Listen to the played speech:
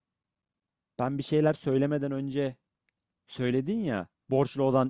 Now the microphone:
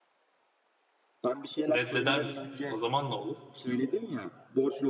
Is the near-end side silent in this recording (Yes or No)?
No